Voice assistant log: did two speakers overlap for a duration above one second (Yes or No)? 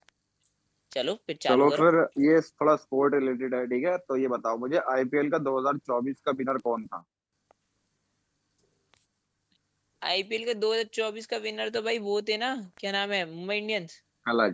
No